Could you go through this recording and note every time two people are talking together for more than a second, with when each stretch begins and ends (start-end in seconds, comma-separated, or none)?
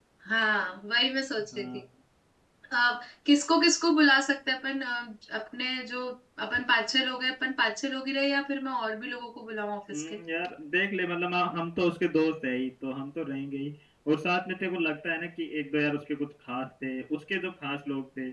none